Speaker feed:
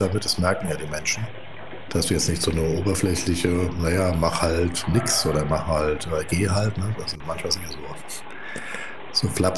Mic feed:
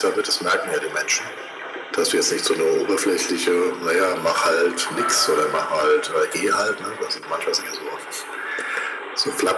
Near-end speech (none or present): none